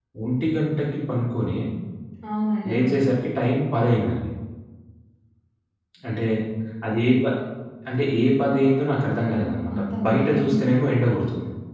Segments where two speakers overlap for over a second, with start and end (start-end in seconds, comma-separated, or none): 9.2-10.4